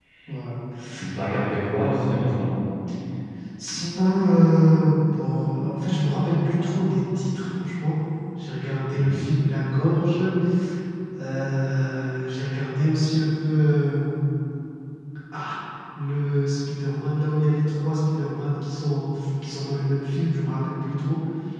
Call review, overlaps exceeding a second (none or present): none